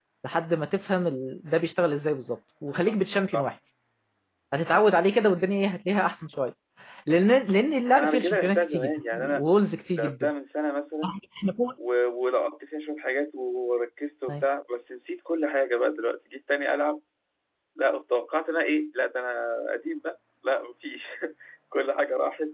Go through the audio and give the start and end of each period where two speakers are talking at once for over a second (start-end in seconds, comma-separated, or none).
8.0-9.4